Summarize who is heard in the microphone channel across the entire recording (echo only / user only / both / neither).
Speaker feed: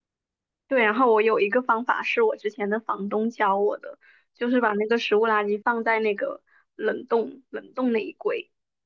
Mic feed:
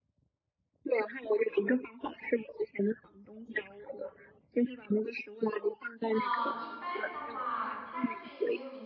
both